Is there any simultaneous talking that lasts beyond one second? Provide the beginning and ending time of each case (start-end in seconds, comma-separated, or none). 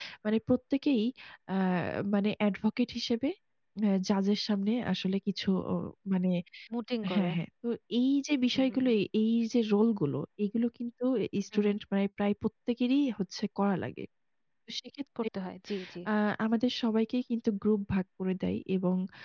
none